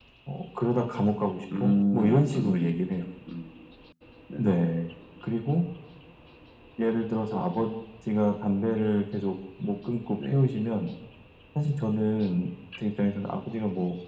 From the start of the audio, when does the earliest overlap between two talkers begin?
1.6 s

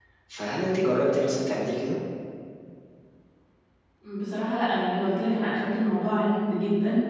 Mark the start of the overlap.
none

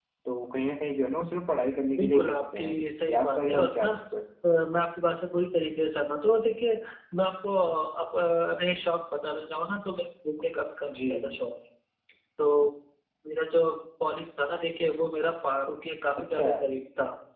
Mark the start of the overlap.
2.0 s

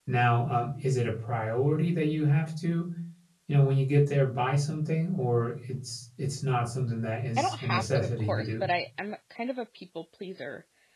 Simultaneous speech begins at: 7.4 s

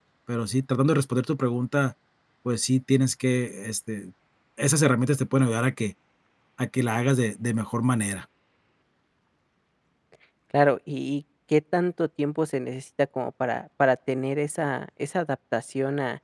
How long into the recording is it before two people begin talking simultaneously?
none

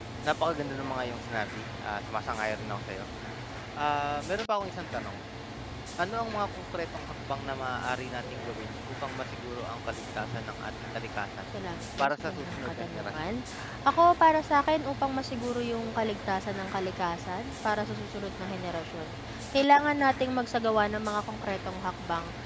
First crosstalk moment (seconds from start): 12.0 s

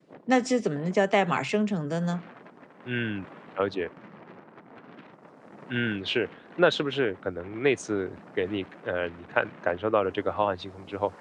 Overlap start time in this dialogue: none

